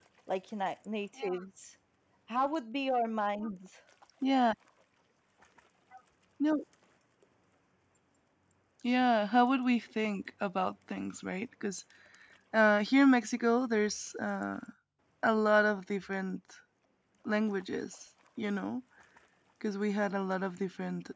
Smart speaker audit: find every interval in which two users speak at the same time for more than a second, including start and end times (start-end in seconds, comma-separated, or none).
none